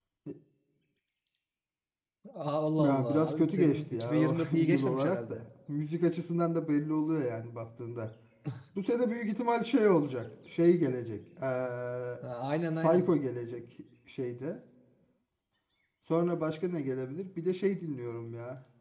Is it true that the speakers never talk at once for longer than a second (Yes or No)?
No